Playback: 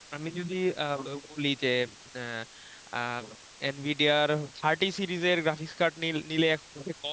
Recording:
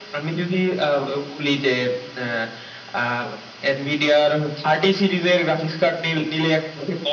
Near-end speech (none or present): none